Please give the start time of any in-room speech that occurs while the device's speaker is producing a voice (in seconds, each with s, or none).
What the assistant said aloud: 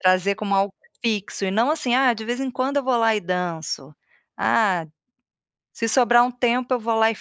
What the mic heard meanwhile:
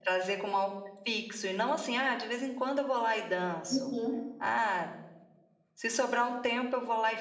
3.7 s